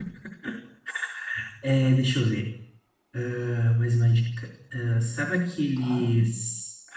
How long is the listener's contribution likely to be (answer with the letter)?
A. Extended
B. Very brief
B